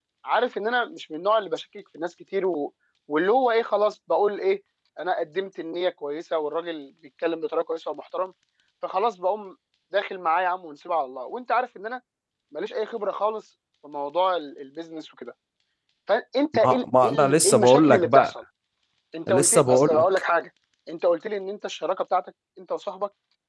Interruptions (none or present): present